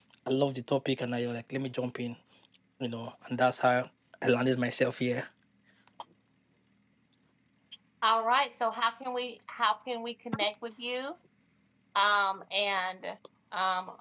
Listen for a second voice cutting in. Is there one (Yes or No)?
No